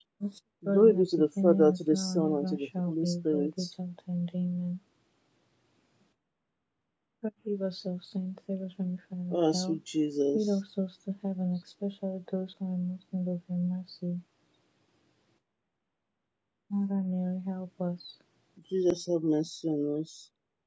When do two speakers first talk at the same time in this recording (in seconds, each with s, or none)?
0.7 s